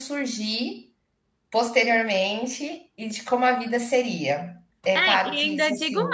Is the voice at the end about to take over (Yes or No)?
Yes